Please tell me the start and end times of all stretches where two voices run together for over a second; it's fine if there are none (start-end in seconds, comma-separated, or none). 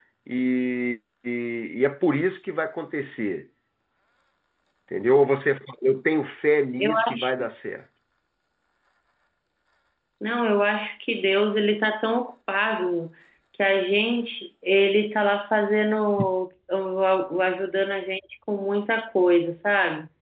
none